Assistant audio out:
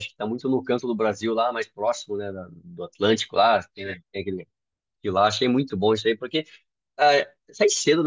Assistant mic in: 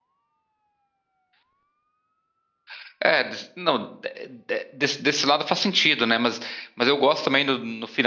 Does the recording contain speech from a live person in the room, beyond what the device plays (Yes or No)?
Yes